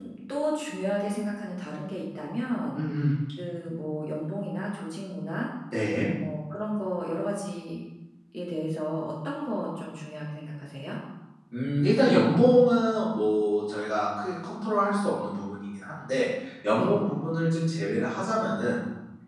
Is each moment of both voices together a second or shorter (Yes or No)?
Yes